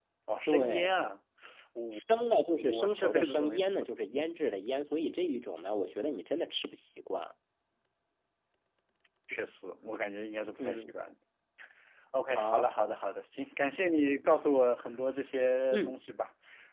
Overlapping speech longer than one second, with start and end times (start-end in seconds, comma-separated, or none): 2.6-4.3